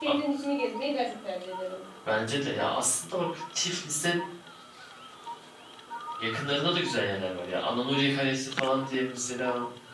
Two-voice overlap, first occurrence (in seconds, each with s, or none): none